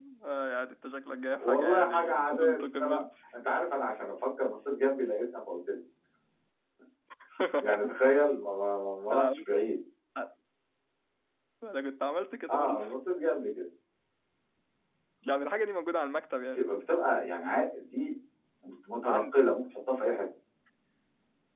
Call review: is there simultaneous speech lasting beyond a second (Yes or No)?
Yes